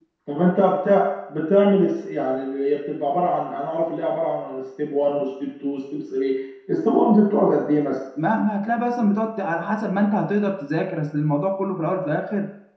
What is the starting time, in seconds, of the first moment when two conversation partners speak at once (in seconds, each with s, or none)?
none